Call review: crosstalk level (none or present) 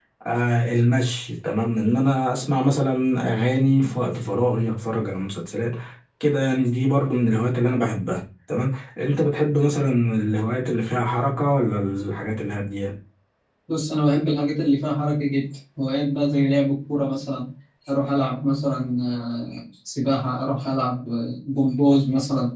none